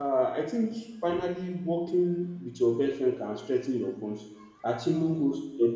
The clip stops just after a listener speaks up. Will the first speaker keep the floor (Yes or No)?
Yes